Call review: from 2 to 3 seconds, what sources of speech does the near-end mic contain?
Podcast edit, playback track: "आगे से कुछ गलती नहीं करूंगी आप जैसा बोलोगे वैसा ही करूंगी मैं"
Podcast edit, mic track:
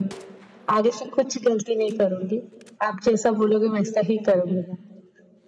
echo only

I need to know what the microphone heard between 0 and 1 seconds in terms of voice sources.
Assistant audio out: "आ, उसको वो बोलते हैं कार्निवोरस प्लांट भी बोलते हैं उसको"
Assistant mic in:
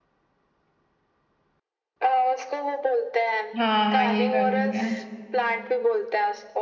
neither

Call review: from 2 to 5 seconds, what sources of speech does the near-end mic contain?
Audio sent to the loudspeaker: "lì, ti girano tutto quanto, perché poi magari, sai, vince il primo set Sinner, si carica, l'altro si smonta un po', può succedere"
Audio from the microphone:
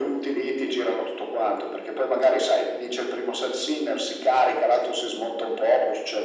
echo only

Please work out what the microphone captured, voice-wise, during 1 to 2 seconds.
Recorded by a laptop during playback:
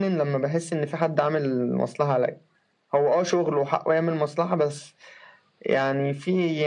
echo only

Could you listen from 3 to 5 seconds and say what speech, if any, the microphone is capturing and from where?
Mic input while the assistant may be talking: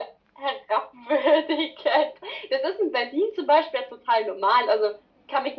echo only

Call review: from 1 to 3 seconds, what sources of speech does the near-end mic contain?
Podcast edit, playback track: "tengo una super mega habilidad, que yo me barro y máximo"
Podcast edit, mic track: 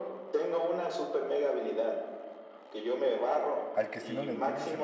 echo only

